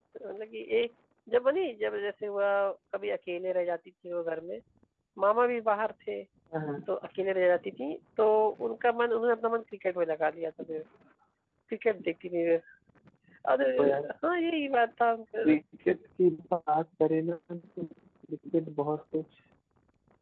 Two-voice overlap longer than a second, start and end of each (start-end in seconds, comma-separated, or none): none